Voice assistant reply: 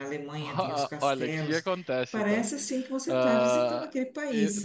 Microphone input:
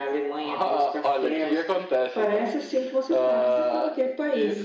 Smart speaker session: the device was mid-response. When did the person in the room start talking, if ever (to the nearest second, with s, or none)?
none